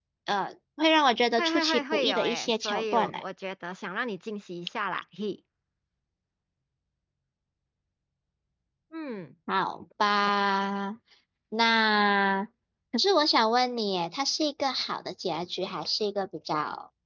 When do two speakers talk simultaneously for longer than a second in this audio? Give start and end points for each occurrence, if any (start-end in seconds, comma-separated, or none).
1.4-3.2